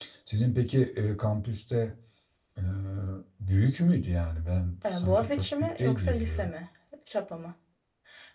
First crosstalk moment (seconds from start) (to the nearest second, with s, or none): 5 s